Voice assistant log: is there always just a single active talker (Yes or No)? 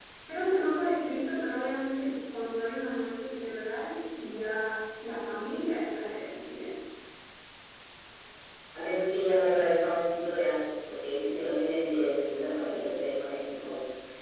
Yes